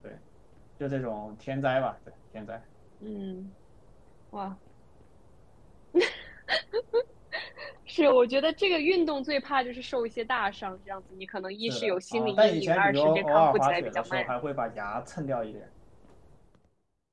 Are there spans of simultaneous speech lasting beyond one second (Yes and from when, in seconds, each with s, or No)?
Yes, from 11.7 s